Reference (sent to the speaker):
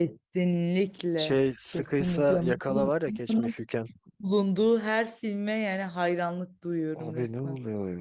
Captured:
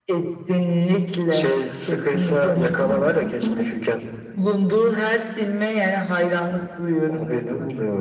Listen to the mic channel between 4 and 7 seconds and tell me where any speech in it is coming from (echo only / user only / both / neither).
echo only